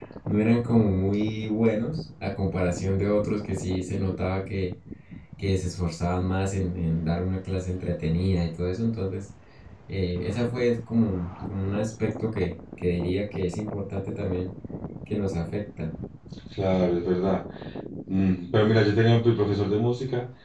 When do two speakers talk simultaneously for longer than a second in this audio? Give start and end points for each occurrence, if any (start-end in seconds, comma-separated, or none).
none